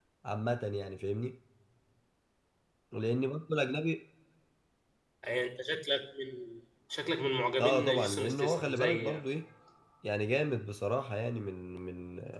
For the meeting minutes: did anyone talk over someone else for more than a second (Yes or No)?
Yes